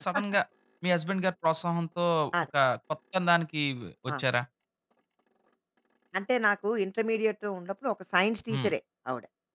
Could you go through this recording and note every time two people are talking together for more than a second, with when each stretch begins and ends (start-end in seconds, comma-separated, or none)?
none